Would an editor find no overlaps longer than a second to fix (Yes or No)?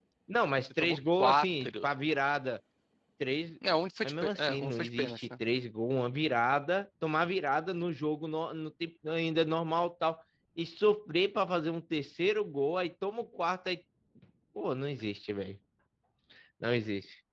No